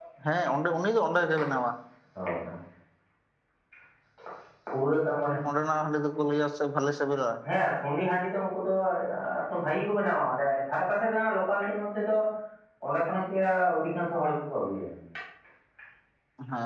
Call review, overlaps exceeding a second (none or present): none